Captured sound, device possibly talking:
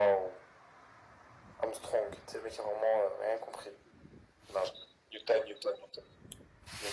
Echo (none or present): present